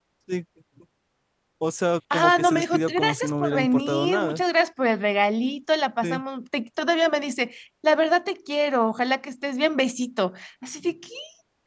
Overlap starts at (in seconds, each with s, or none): 2.1 s